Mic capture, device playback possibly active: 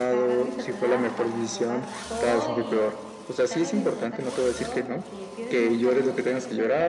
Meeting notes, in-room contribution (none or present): present